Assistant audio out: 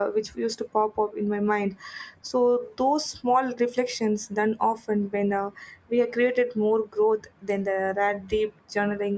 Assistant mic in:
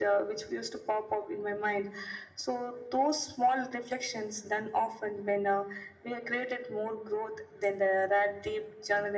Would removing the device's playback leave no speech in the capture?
Yes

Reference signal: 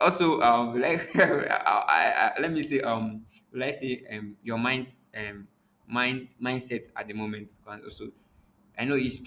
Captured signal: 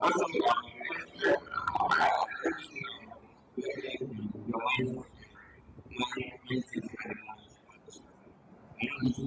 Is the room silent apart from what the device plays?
Yes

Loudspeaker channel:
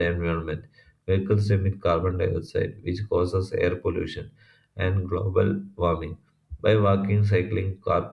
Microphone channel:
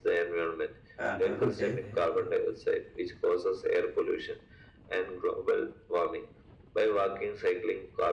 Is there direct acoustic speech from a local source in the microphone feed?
Yes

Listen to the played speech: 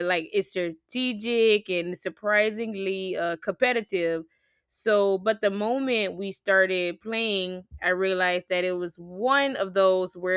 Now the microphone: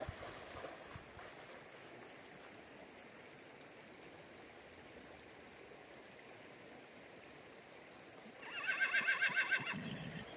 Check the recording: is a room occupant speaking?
No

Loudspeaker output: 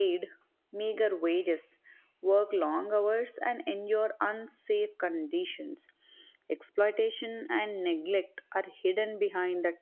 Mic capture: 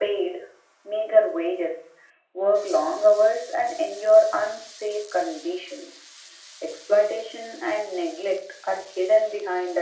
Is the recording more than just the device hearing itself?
No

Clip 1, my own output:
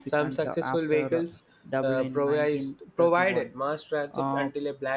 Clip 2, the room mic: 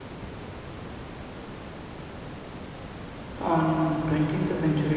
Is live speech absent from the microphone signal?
No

